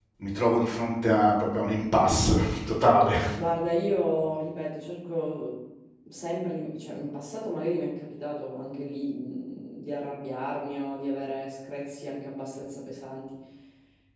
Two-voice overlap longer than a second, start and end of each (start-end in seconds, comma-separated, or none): none